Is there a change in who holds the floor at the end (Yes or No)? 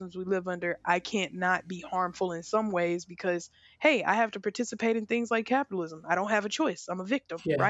No